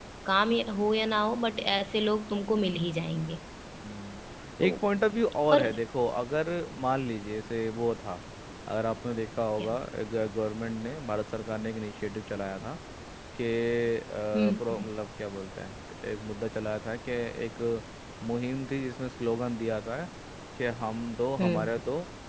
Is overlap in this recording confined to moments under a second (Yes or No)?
Yes